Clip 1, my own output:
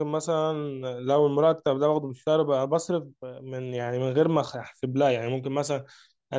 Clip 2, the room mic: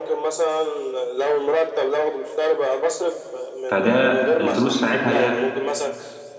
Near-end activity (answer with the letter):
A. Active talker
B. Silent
A